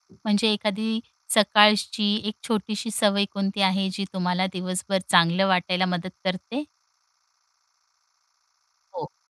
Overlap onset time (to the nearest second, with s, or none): none